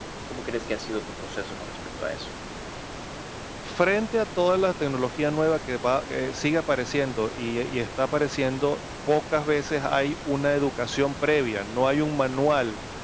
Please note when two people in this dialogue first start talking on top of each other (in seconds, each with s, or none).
none